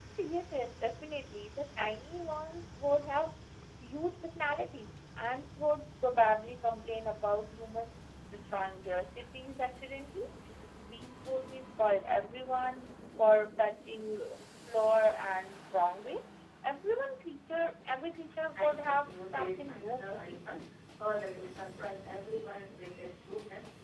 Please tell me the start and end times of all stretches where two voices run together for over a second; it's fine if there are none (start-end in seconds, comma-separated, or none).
18.6-20.4